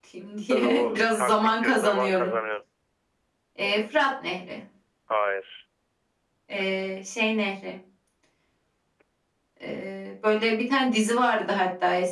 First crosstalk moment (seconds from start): 0.5 s

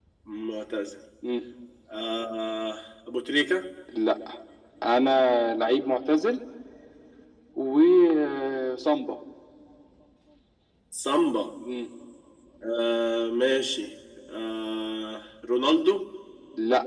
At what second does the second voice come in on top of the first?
none

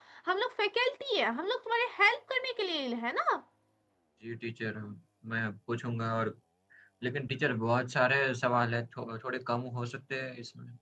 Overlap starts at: none

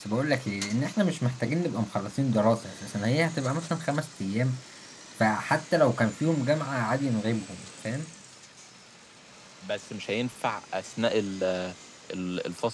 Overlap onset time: none

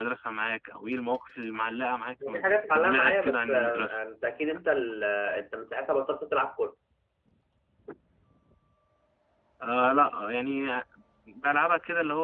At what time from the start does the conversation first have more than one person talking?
2.2 s

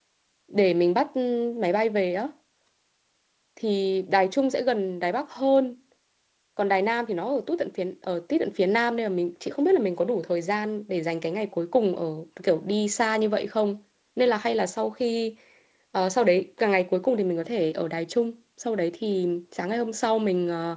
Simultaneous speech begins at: none

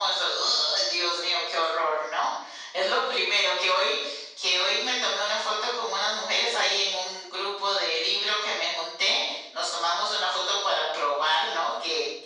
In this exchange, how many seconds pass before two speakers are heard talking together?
none

